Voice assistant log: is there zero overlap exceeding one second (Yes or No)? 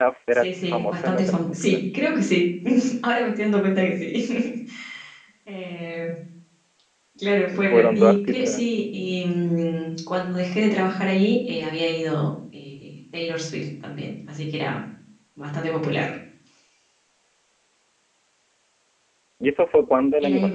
No